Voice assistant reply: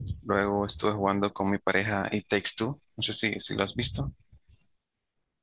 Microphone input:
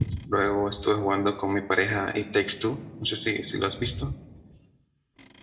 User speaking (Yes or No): No